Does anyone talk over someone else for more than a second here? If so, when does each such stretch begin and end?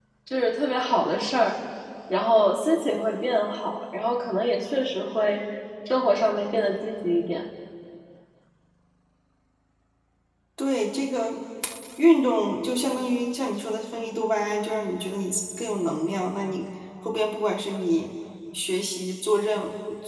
none

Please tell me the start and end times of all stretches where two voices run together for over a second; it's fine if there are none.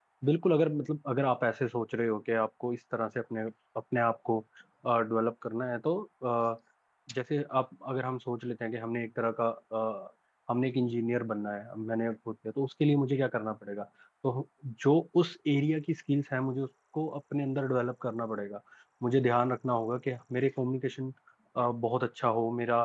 none

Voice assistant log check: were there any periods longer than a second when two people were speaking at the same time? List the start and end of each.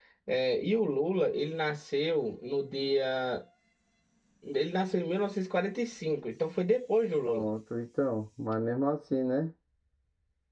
none

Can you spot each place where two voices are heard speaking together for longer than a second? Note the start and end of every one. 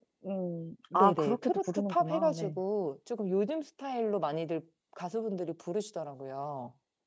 0.9-2.6

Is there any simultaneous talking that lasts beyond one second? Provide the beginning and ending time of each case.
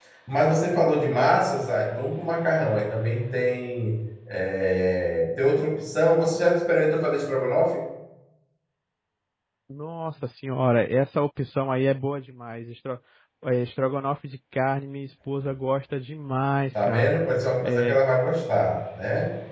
none

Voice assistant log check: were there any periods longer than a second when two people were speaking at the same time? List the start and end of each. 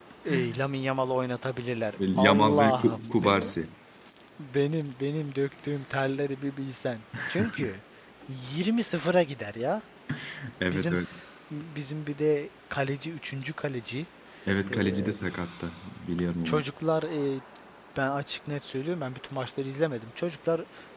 2.2-3.5

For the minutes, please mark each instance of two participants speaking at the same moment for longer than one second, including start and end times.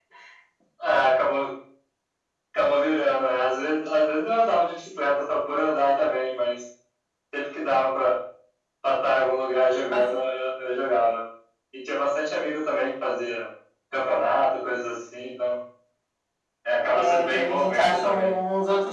16.9-18.3

